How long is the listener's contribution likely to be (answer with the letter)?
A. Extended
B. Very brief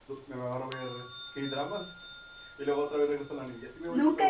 A